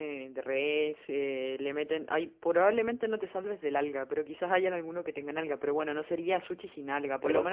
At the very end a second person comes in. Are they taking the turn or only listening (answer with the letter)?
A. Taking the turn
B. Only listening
B